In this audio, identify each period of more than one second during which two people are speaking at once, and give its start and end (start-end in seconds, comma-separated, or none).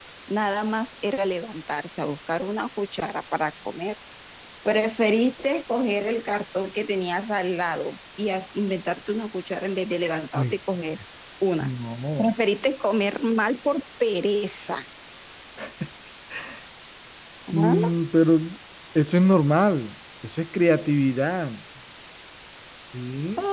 none